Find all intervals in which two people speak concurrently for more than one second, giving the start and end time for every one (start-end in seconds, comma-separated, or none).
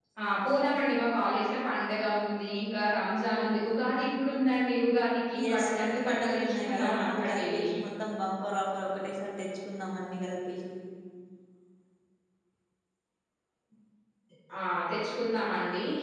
5.5-7.7